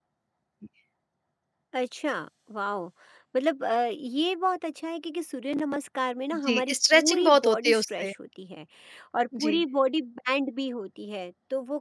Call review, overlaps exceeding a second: present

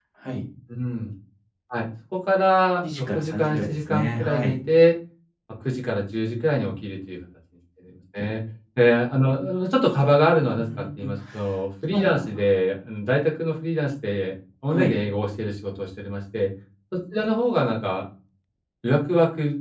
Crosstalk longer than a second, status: present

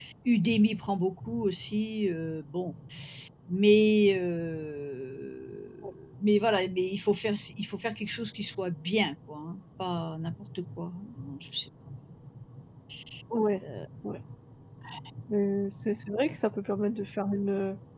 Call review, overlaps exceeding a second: none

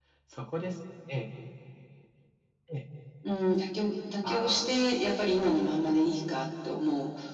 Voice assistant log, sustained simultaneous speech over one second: none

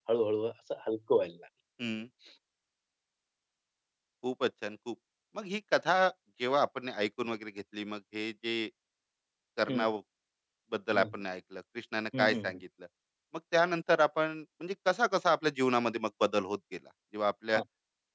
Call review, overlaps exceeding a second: none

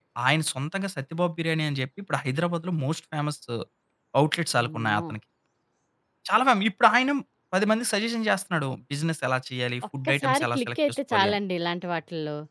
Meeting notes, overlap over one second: present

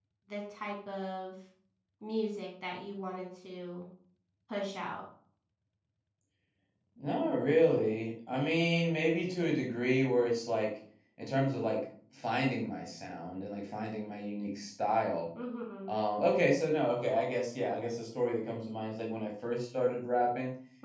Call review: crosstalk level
none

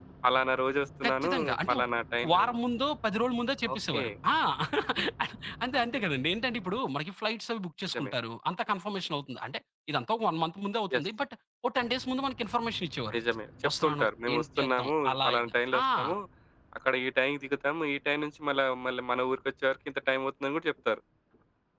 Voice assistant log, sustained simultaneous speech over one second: present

